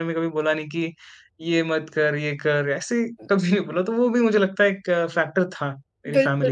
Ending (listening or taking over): taking over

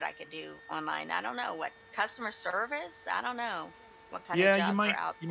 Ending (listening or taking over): taking over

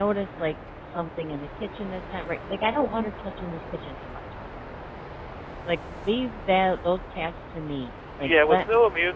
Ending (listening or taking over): taking over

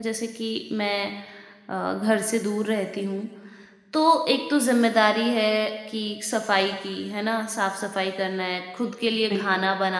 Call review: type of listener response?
listening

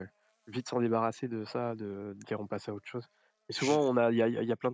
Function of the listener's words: listening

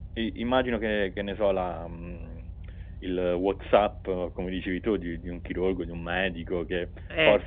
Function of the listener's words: listening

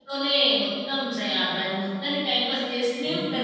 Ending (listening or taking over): taking over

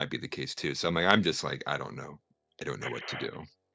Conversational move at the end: taking over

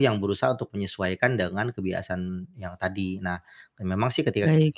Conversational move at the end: listening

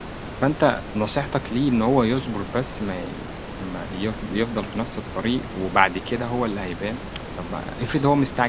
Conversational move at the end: listening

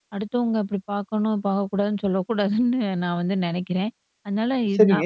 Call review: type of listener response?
taking over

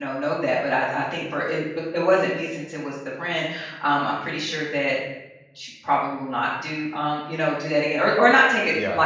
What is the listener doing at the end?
listening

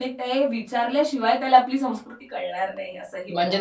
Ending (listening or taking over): taking over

